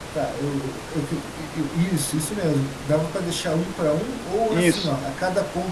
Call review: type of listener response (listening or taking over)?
listening